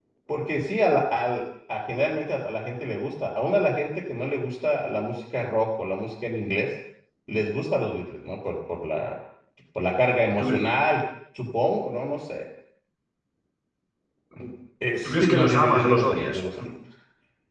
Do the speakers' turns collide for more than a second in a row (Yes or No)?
Yes